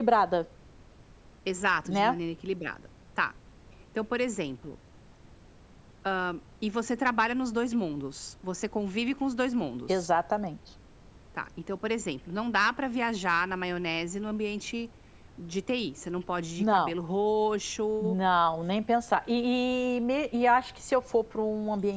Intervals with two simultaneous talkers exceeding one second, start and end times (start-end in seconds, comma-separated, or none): none